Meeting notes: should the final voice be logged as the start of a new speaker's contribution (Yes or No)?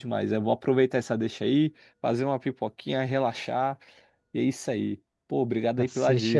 Yes